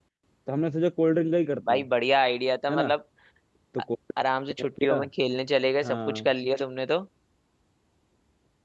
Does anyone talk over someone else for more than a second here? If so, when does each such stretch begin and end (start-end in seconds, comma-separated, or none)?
none